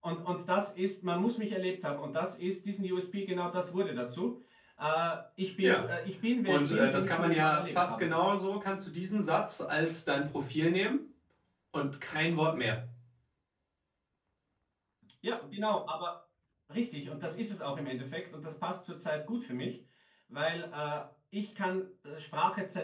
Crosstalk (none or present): present